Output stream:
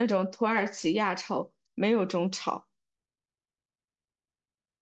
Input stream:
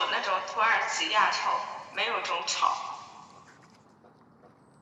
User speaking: No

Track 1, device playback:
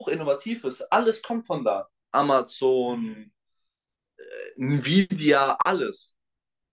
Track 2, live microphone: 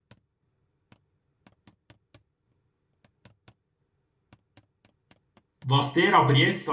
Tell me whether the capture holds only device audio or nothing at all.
No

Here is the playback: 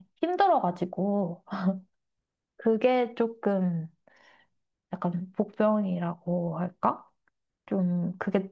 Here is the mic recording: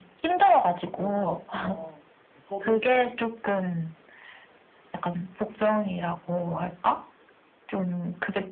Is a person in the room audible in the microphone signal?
Yes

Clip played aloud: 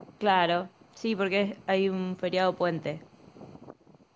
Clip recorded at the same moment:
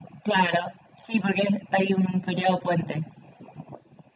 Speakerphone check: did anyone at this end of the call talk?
No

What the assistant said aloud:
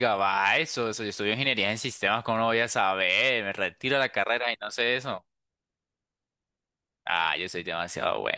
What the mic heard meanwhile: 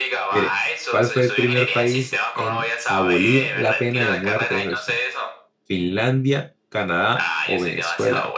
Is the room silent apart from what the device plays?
No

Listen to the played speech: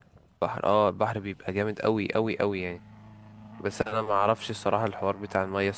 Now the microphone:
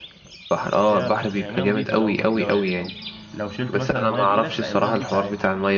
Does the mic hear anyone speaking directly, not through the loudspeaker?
Yes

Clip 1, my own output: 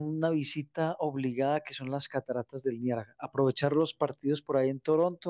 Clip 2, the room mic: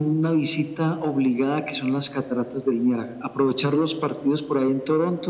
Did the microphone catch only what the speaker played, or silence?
Yes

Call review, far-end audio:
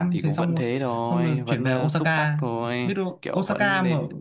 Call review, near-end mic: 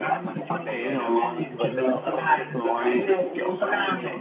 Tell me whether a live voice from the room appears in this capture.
Yes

